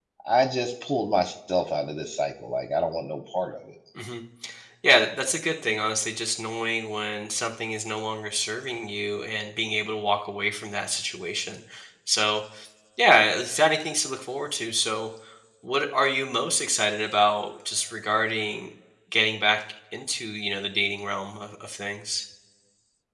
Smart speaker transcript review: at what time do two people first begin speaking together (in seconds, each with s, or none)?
none